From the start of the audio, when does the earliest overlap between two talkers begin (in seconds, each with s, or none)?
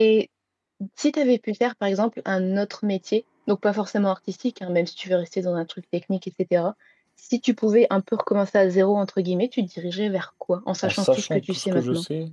10.8 s